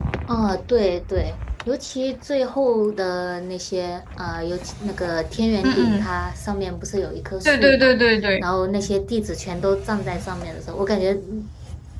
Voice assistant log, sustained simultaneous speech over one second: none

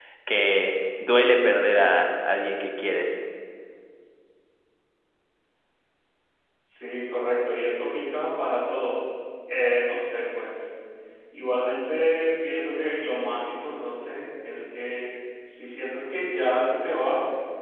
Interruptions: none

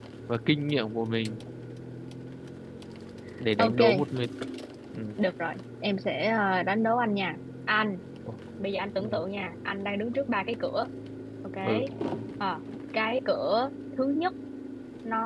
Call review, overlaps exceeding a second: none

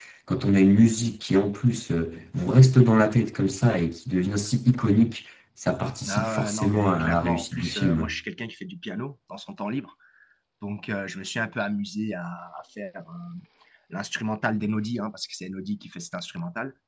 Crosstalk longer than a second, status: present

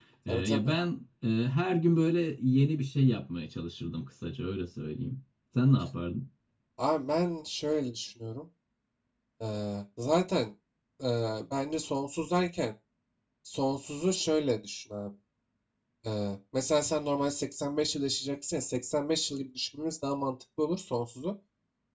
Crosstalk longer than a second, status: none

